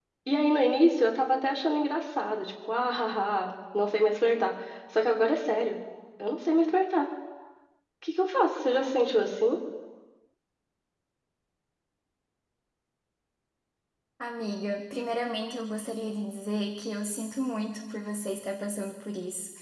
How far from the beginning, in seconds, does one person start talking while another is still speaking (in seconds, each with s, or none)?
none